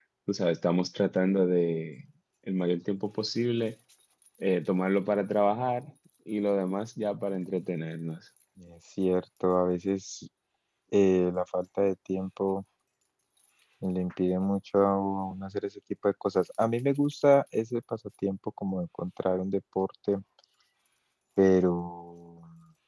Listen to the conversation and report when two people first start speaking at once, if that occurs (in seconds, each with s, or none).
none